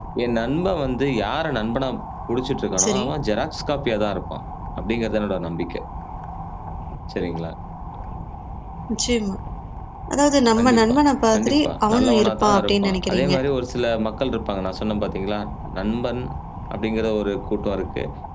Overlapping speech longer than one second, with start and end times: 11.3-13.3

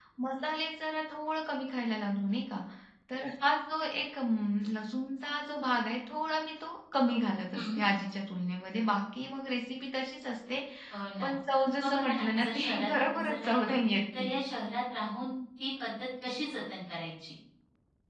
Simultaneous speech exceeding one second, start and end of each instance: 11.8-13.8

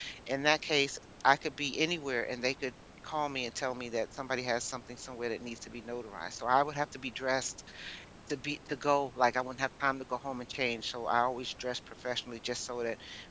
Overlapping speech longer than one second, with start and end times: none

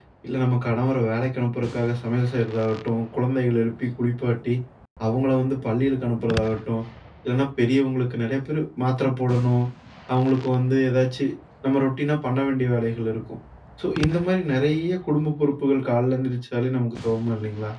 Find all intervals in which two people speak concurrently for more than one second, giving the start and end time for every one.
none

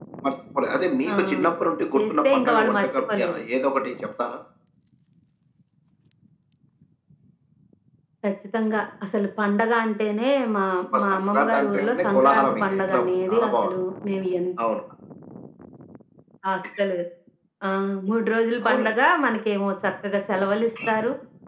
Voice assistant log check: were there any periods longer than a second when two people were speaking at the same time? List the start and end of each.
2.0-3.4, 11.0-13.6

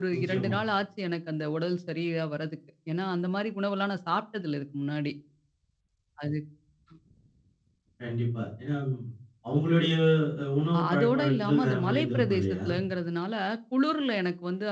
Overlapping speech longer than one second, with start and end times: 10.8-12.6

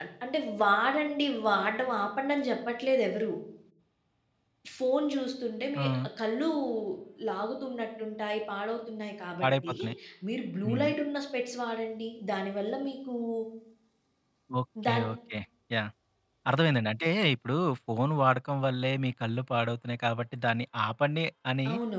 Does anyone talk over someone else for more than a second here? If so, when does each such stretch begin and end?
none

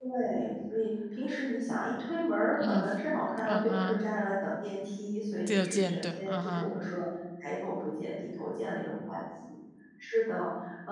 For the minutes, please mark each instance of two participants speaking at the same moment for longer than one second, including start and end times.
5.5-6.7

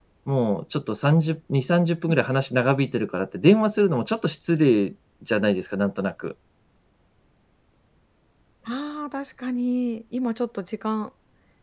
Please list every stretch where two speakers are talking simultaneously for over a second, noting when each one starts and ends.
none

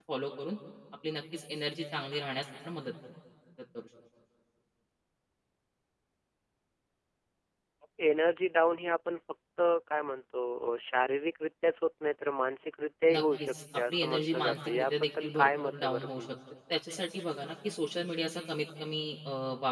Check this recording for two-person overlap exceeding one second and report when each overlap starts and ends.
13.1-16.3

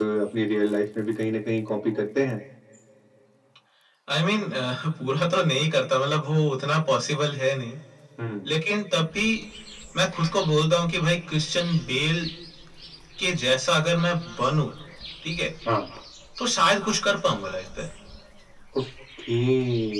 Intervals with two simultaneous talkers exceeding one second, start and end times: none

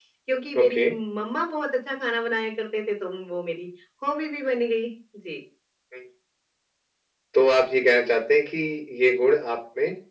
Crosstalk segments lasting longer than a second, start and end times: none

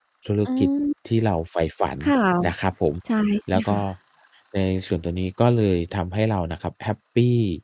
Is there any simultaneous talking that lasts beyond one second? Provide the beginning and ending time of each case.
none

